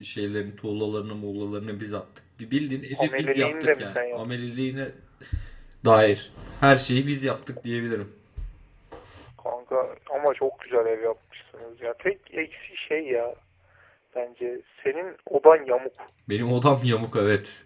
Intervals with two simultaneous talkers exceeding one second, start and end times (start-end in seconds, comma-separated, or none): 3.0-4.2